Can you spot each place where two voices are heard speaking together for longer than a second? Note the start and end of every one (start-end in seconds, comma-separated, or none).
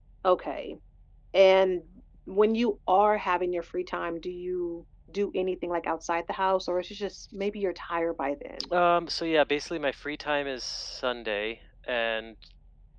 none